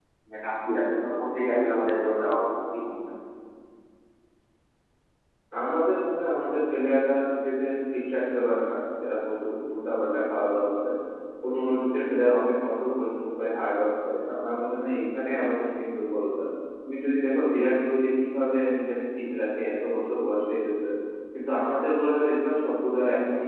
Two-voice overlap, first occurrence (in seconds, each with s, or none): none